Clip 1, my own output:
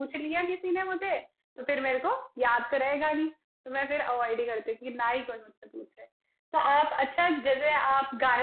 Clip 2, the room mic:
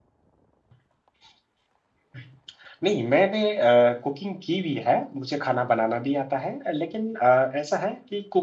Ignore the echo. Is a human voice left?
Yes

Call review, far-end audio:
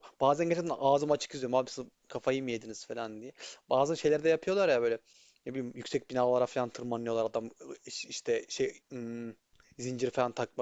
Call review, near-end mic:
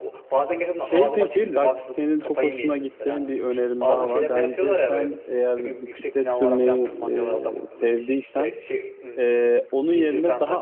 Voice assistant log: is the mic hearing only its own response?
No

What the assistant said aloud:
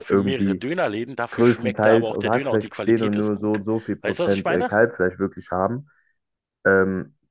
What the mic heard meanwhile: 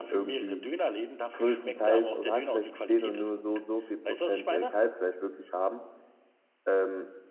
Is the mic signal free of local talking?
Yes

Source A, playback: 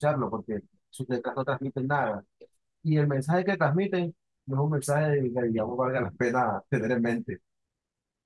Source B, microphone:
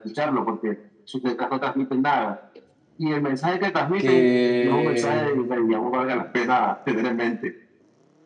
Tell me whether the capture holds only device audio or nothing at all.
No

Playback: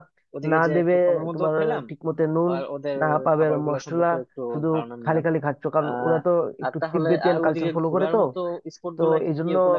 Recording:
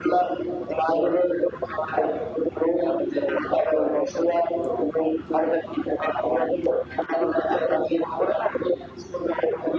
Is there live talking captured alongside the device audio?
No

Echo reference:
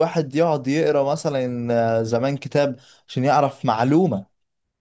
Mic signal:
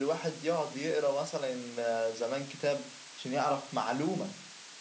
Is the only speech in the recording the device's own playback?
Yes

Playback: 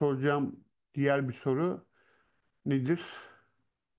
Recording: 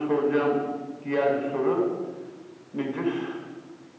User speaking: No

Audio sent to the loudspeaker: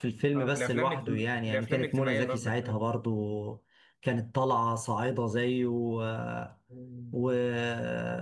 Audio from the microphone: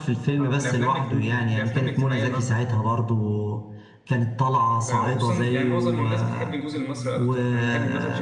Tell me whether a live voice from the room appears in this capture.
Yes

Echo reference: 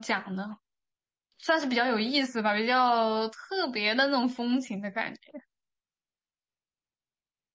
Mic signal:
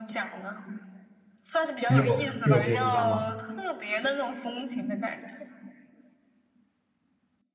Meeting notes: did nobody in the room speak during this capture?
No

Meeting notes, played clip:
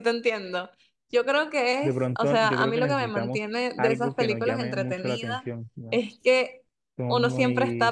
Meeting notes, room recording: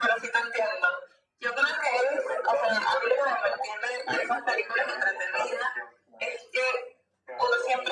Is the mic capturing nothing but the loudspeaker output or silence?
Yes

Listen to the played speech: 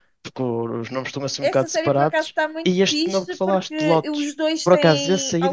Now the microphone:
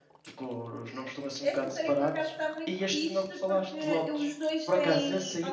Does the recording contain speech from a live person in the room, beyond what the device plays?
No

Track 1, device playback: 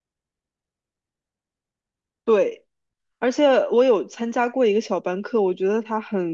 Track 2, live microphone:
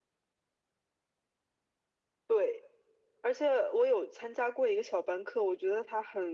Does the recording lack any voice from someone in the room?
Yes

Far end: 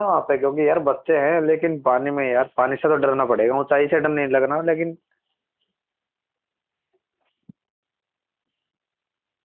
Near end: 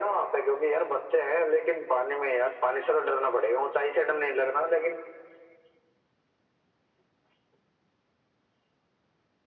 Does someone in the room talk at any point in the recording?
No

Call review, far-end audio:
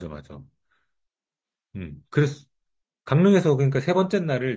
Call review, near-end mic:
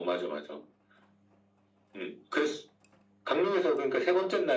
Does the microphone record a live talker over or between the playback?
No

